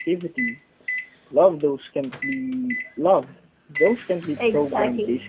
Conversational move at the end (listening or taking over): taking over